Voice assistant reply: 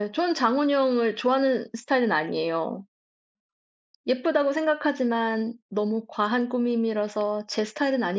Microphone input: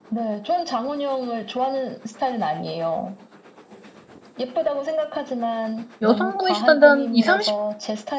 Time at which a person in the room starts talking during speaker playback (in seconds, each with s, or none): 6.0 s